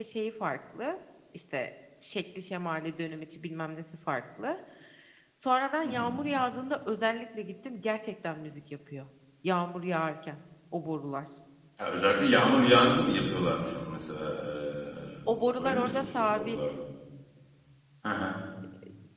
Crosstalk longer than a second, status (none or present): present